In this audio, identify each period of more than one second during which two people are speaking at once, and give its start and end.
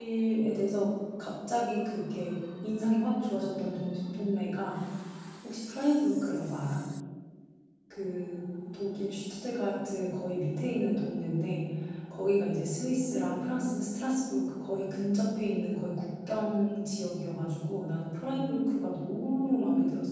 none

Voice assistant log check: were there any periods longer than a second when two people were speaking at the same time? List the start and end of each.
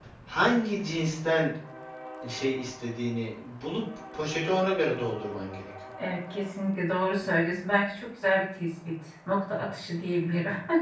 none

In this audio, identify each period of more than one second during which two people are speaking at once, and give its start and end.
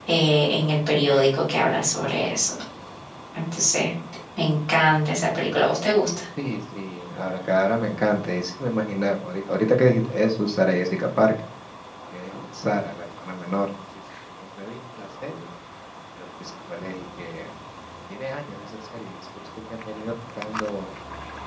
none

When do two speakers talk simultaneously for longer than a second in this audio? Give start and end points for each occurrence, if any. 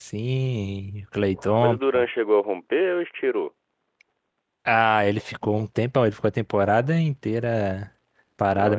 none

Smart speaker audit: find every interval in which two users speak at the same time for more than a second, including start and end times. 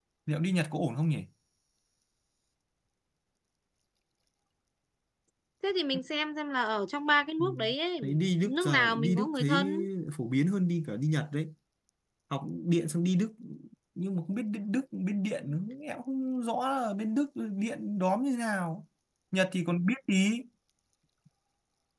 8.4-9.7

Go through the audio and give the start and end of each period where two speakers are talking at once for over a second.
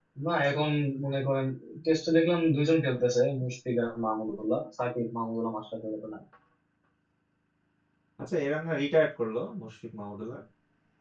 none

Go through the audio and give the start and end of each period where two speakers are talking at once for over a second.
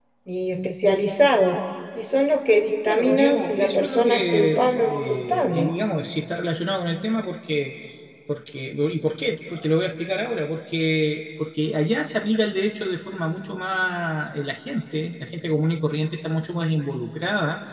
2.9-5.7

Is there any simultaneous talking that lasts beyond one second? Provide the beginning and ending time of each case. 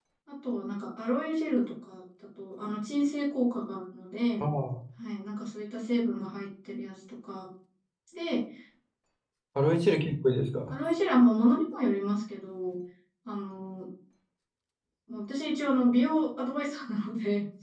none

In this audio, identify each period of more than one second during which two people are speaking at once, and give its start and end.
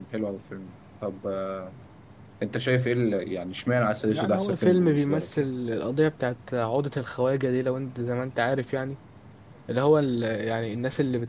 4.1-5.5

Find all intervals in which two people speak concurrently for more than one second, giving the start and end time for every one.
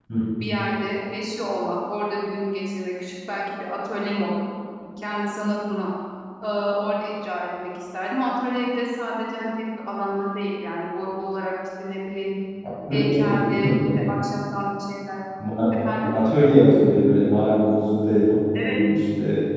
12.9-14.1

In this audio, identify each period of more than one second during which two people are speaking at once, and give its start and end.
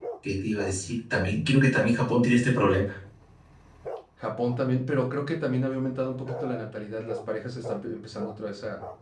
none

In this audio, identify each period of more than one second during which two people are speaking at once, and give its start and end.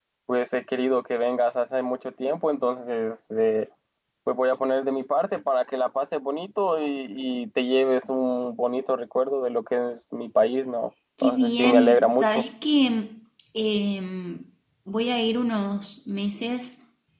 11.2-12.4

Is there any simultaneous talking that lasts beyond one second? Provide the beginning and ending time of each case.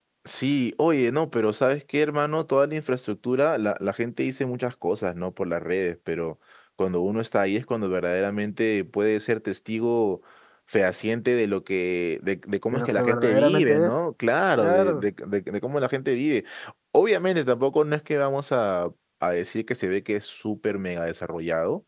12.7-13.9

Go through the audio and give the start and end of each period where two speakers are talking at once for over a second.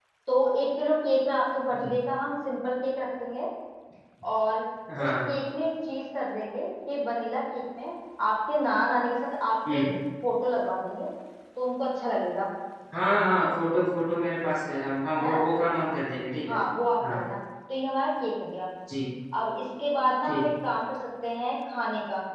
none

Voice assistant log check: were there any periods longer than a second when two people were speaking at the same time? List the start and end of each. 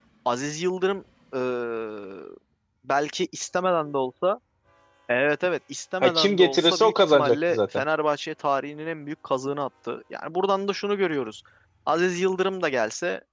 6.0-7.8

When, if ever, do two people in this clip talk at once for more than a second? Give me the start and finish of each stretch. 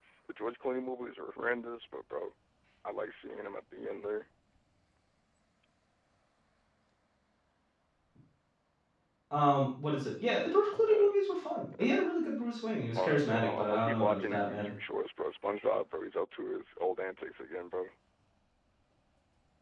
12.9-14.7

